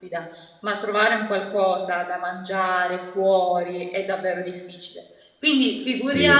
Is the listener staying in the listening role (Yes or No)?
Yes